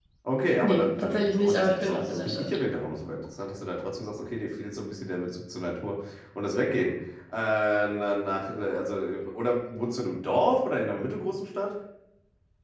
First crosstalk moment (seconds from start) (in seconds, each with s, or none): 0.6 s